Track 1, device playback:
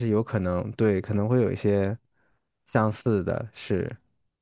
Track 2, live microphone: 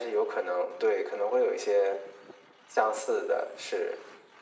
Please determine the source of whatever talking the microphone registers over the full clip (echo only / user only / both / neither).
echo only